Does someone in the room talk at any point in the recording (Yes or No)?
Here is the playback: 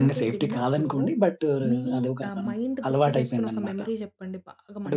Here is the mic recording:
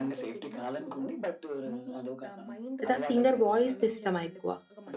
Yes